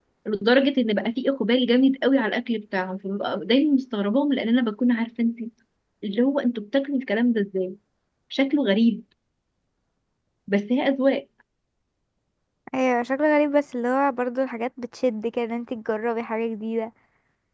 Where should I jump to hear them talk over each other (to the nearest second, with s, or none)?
none